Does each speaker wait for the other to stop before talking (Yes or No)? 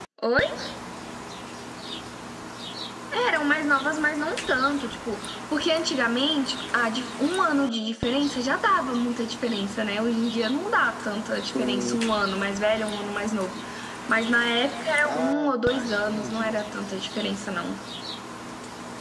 No